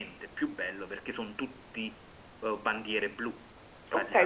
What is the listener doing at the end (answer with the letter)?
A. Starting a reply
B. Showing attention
A